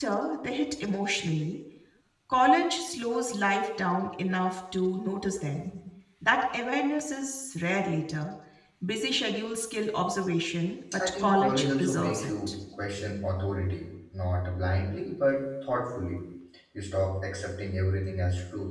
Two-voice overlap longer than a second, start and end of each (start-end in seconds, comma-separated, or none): 11.0-12.3